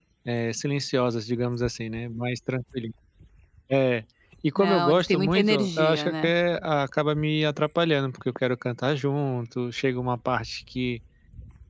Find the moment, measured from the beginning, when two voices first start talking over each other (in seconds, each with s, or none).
4.6 s